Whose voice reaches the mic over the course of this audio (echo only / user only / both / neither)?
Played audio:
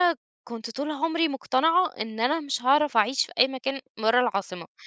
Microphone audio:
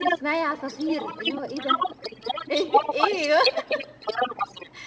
both